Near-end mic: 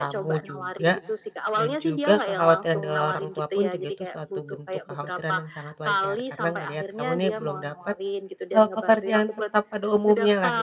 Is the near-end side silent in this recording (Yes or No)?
No